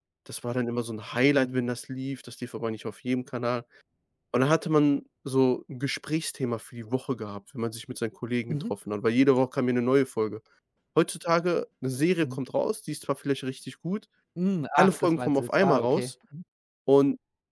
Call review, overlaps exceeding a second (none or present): present